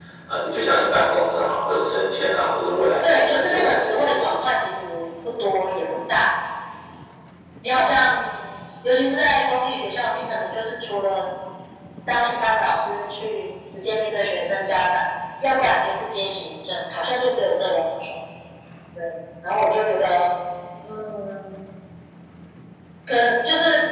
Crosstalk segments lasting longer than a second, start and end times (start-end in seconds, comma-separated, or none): 3.0-4.3